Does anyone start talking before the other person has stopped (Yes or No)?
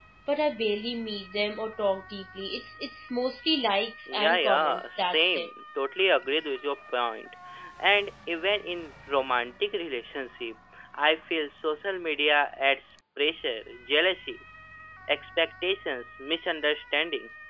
Yes